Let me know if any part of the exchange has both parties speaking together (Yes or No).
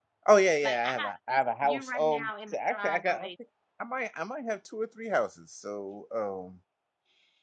Yes